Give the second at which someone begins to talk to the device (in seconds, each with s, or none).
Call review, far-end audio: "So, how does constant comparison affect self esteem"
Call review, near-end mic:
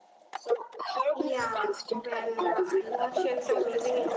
1.1 s